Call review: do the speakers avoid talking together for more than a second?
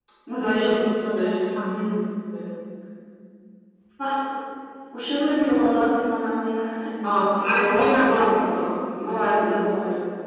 No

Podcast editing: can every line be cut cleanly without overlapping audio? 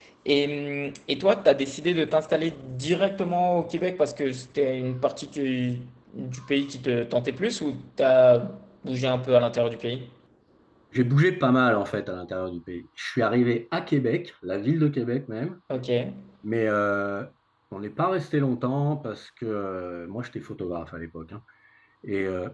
Yes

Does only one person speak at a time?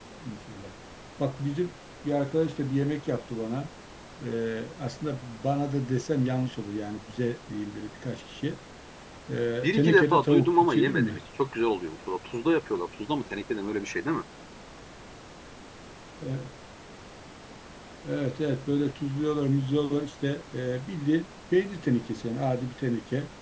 No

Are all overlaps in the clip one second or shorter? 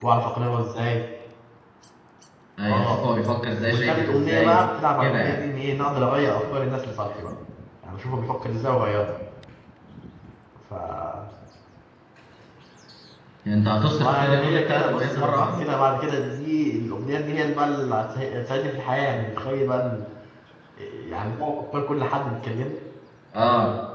No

